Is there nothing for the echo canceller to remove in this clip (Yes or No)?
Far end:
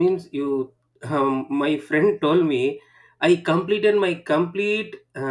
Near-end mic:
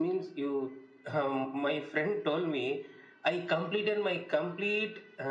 No